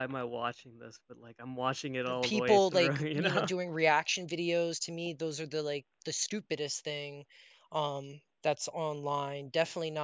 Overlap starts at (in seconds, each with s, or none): 2.1 s